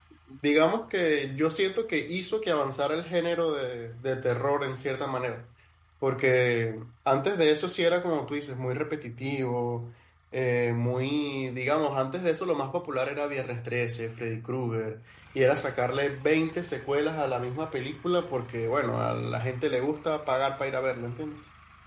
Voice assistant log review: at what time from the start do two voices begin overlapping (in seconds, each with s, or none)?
none